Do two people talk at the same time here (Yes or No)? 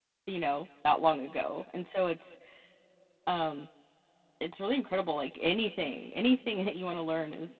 No